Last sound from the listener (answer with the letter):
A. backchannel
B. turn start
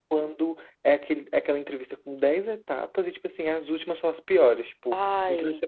A